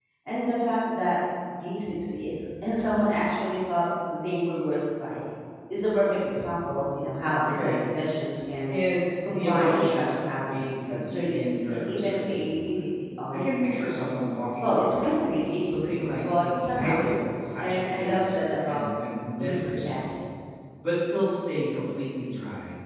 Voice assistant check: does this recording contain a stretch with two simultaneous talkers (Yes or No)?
Yes